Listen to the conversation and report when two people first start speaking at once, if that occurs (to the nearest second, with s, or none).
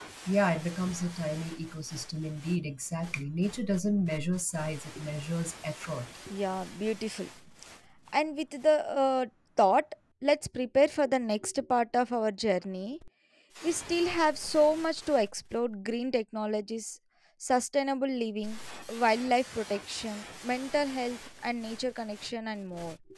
none